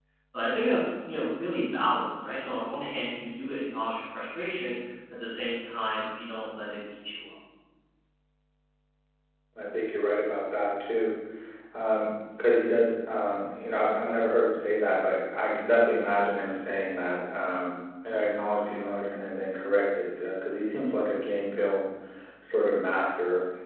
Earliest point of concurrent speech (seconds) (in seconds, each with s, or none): none